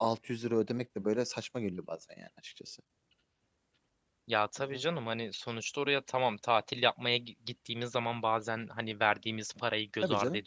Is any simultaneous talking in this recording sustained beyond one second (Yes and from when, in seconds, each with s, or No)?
No